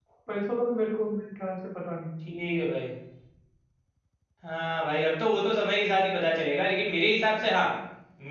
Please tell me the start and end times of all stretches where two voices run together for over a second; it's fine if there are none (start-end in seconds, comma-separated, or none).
none